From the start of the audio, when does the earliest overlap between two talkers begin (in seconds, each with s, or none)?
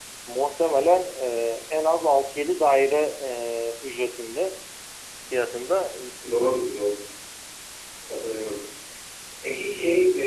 none